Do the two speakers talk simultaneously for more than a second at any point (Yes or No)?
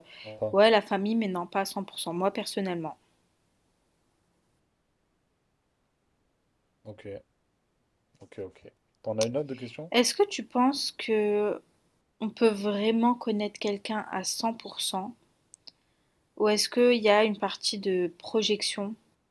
No